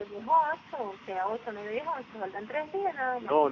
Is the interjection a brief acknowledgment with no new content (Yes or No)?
No